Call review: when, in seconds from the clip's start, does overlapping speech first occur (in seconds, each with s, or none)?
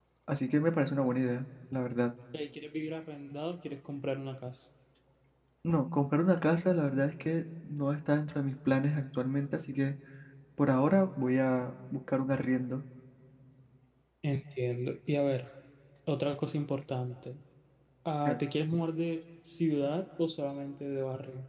none